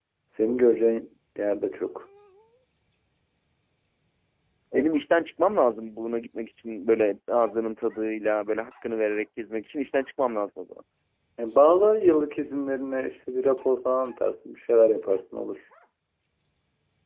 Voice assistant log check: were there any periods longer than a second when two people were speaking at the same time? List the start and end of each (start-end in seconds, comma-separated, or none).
none